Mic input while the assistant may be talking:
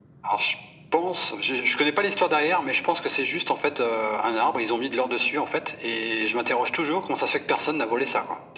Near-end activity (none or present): none